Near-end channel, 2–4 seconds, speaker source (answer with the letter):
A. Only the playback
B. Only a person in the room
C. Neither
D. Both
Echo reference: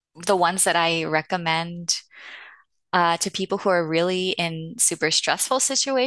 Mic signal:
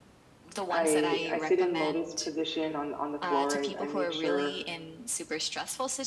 D